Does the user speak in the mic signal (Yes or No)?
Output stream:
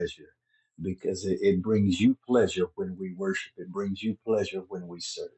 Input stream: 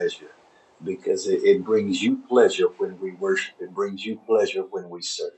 No